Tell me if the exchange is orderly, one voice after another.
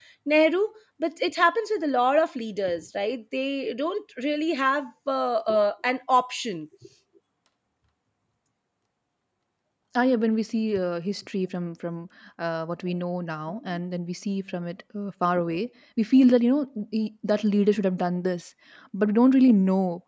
Yes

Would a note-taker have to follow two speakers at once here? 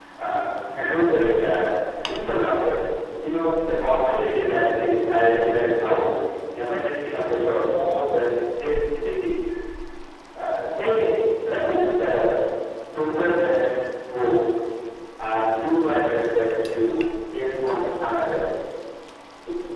No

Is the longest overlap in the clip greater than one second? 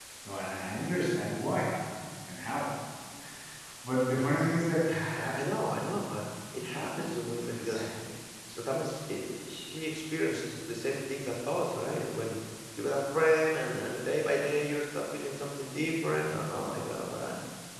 No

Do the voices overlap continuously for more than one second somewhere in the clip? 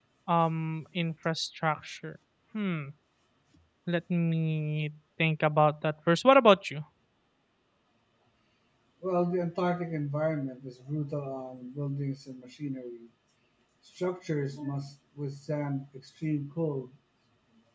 No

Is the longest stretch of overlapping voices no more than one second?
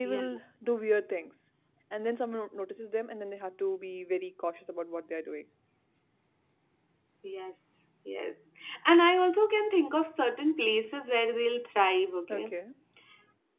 Yes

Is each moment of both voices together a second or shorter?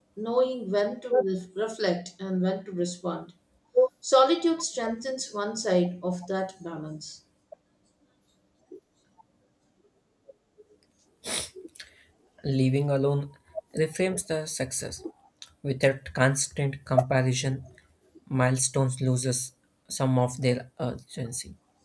Yes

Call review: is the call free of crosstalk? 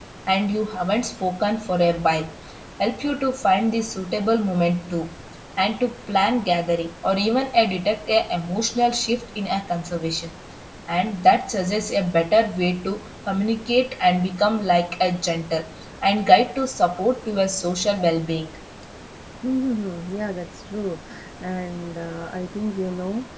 Yes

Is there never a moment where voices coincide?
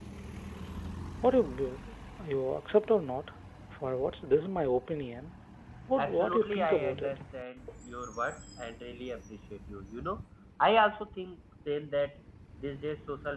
No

